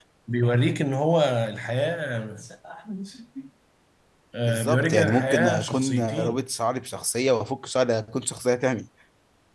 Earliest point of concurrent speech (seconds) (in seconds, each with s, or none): 4.5 s